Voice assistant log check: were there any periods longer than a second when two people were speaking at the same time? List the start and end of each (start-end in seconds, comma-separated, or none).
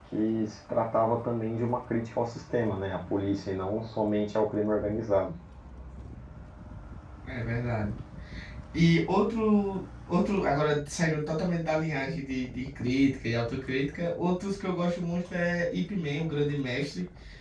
none